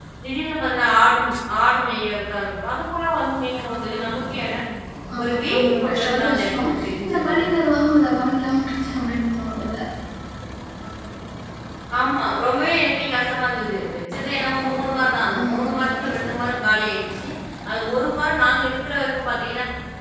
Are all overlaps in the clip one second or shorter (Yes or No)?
No